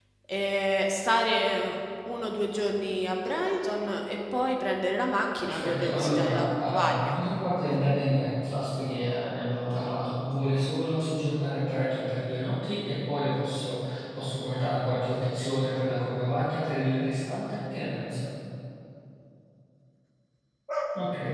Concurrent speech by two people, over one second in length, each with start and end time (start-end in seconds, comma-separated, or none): 5.4-7.2